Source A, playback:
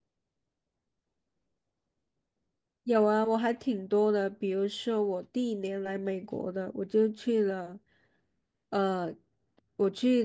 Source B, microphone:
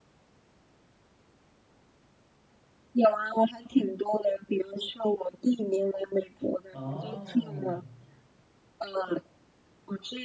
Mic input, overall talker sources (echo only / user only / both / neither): both